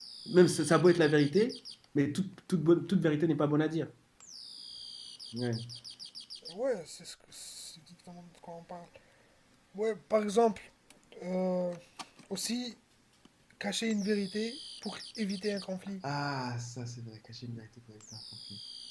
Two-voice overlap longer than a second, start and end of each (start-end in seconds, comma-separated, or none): none